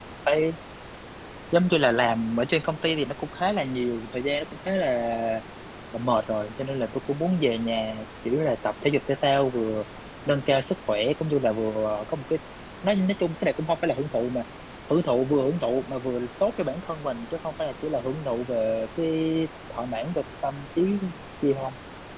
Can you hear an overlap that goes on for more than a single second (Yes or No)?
No